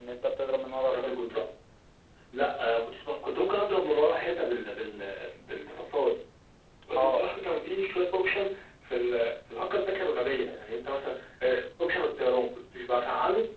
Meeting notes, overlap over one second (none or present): none